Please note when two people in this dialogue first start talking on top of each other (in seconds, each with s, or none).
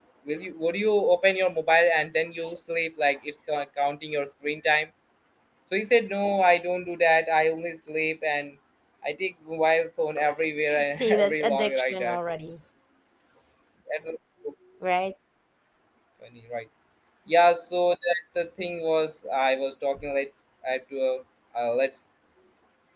10.7 s